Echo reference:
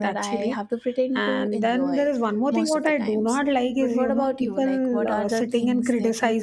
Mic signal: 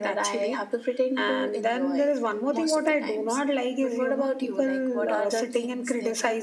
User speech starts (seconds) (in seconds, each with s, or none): none